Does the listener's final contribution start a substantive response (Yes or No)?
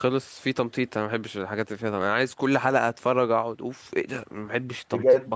Yes